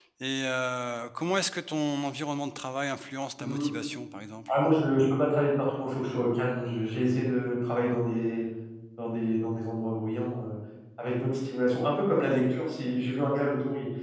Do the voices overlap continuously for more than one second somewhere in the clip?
No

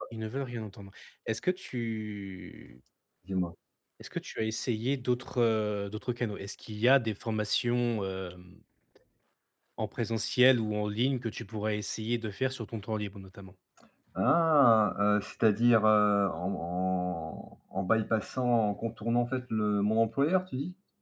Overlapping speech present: No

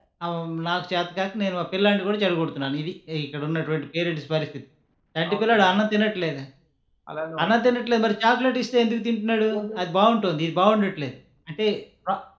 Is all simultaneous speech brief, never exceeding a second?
Yes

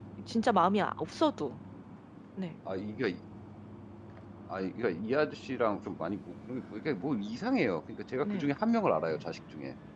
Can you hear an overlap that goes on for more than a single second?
No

